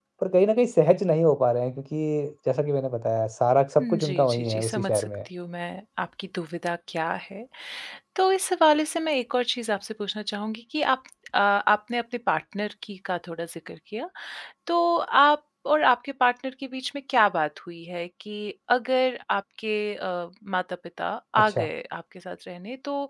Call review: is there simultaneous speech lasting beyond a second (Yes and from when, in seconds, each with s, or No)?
Yes, from 3.8 s